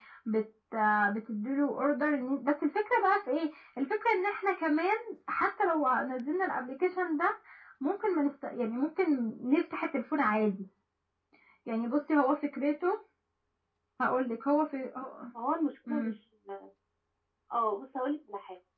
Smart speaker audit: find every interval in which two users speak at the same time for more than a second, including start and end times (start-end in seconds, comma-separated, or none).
none